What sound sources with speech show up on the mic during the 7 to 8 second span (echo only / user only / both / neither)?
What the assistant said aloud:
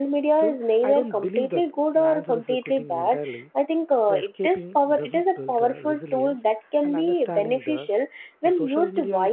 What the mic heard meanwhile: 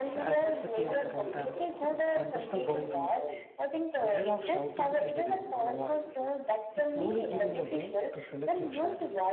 both